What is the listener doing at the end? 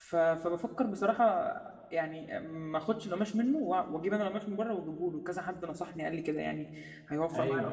taking over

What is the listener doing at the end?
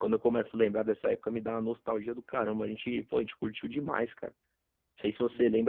listening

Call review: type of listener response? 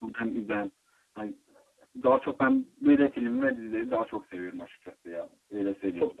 taking over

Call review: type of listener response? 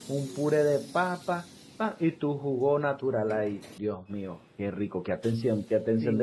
taking over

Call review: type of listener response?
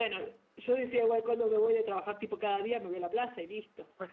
taking over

